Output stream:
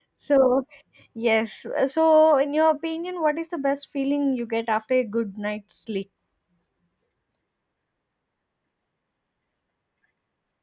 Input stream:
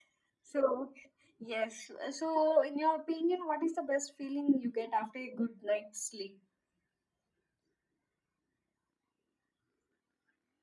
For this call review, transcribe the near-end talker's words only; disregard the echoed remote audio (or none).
none